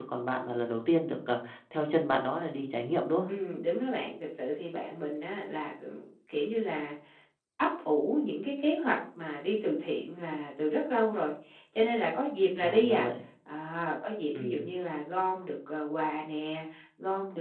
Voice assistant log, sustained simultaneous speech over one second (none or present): none